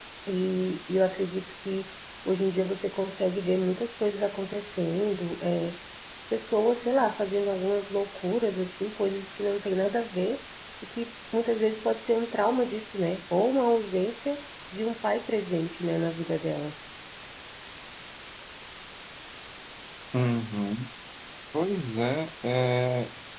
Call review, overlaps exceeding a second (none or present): none